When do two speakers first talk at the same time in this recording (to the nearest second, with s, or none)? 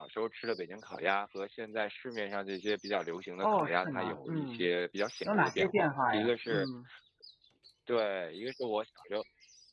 3 s